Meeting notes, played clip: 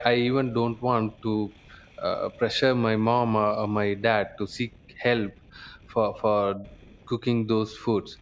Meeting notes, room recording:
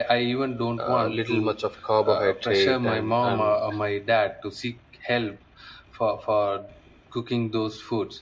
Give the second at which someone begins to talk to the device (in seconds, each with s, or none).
0.8 s